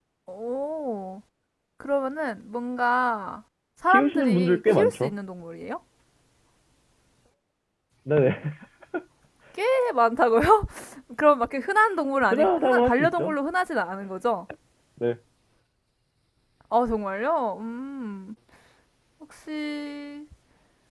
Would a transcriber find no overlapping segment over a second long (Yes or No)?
No